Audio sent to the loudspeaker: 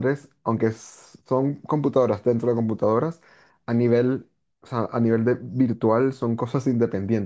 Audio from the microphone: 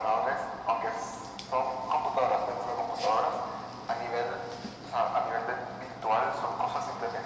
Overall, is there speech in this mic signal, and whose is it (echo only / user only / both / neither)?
echo only